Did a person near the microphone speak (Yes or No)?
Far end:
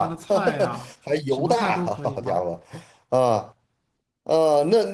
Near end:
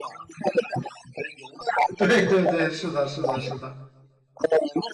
Yes